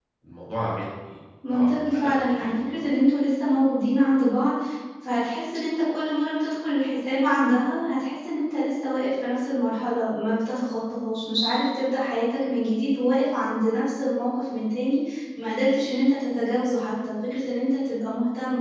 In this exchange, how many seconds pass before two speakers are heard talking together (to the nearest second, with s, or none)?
1 s